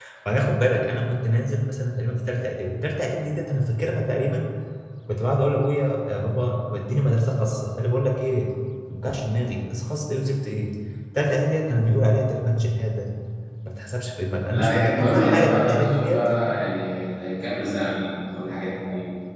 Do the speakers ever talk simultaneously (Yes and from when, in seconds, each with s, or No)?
Yes, from 14.4 s